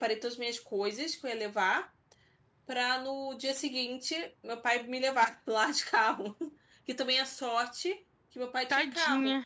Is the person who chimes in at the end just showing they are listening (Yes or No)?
Yes